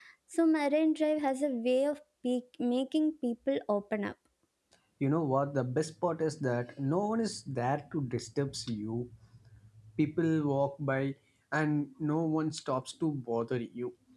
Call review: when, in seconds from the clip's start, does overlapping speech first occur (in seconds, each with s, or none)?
none